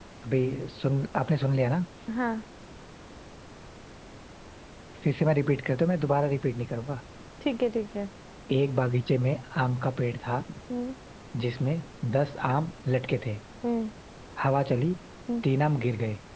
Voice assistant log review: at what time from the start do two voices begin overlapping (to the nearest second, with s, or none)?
none